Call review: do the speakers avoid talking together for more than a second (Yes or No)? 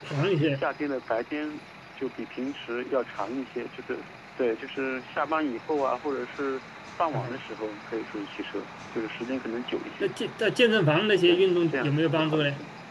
No